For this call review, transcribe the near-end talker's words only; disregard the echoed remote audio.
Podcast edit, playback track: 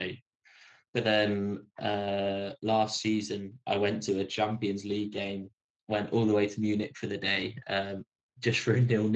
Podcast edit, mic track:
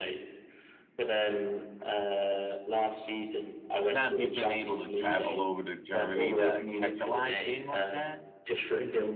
Now, if you've been able to travel over to Germany to catch a live game like that,

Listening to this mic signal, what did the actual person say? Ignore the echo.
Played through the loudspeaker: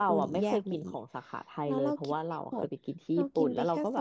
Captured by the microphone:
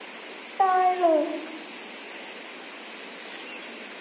ได้เล

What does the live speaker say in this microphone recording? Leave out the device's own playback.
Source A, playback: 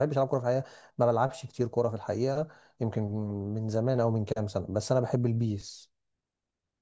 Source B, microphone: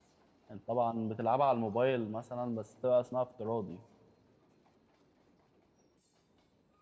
انت طبعا بتلعبها على الموبايل مثلا بس تبقى اسمها افتراضي

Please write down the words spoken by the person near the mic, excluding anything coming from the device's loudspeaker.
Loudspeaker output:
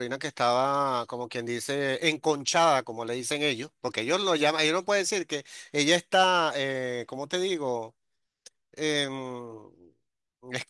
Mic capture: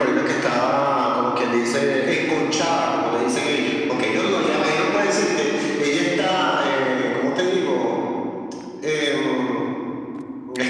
none

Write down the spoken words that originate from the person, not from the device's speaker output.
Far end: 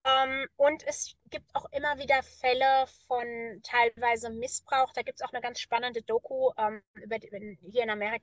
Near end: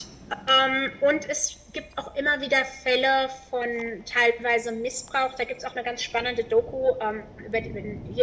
none

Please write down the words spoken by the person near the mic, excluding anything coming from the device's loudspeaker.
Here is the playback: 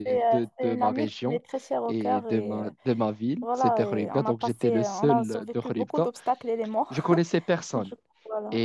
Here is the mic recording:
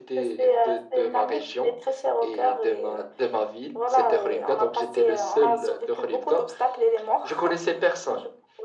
none

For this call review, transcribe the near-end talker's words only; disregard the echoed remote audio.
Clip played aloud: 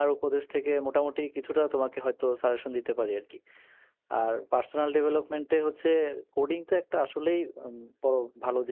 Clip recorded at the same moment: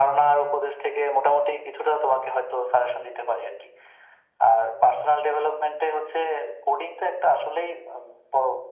none

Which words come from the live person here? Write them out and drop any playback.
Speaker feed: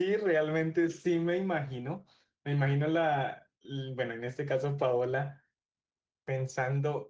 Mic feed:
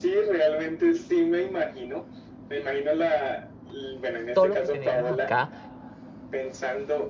todo lo que tenemos acá

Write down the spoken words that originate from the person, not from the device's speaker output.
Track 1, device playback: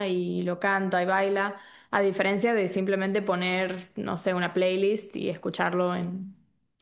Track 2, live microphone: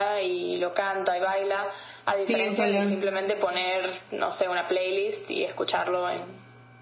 Sí, ojalá.

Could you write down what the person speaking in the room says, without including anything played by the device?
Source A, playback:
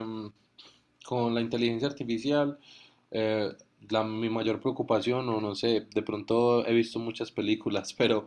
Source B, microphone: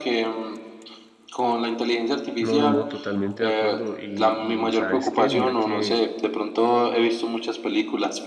No, no, no, totalmente de acuerdo. Y, y ¿sabes qué? Mira que,

